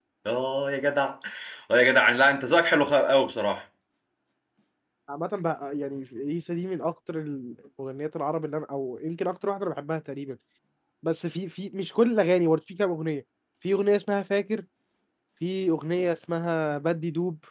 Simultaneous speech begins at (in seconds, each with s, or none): none